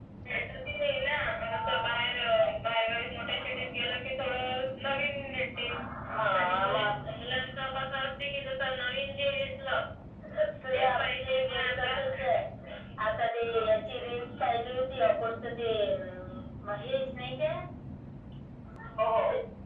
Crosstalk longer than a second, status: present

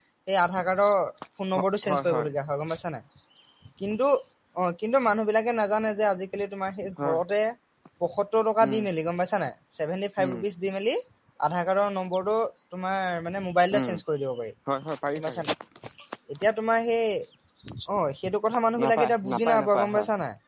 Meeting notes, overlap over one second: present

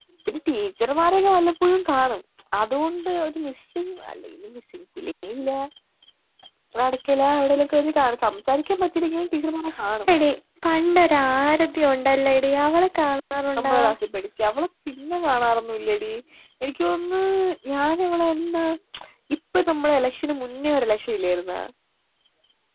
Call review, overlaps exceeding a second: none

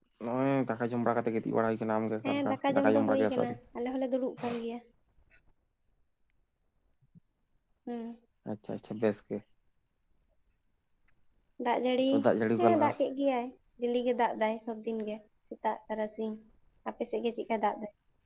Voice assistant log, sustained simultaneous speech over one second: present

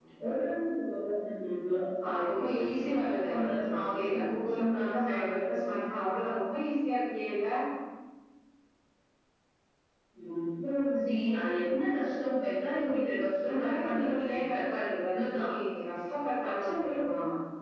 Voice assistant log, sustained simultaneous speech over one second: present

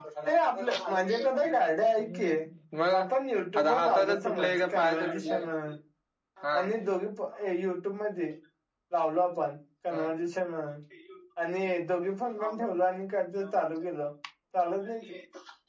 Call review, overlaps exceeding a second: present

